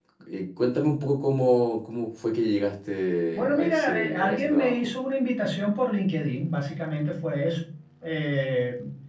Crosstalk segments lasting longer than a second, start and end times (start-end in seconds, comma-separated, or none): 3.4-4.9